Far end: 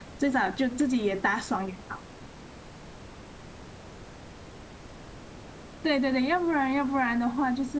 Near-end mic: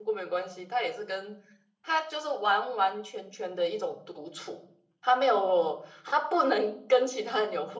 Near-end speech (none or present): present